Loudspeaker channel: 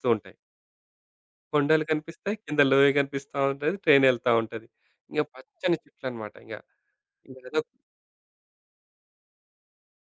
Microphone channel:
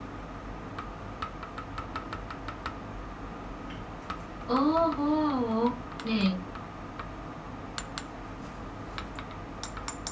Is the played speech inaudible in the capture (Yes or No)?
Yes